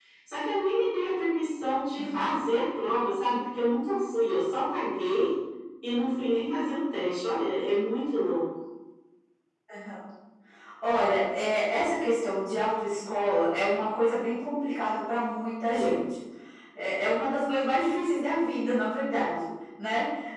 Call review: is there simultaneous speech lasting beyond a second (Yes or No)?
No